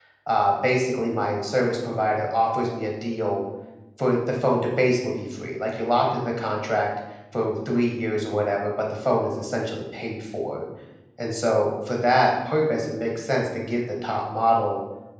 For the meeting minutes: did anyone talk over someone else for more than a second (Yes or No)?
No